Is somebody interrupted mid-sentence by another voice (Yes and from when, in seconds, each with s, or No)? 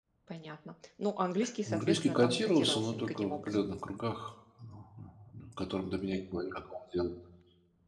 Yes, from 1.4 s